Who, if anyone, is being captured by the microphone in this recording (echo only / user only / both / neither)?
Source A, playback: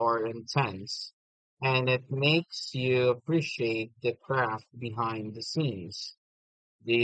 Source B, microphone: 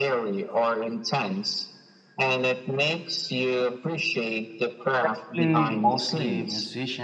both